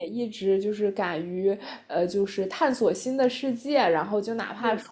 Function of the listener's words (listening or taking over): listening